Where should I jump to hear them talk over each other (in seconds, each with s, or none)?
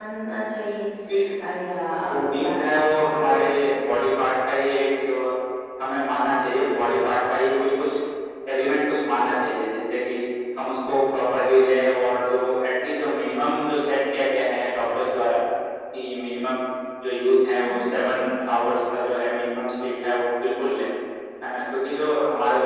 2.1 s